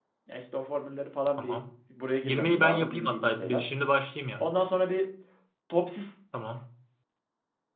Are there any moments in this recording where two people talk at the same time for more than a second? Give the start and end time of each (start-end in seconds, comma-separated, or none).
2.2-3.6